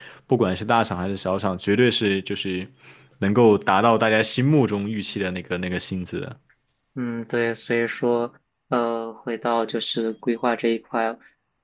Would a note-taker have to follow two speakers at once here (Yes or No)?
No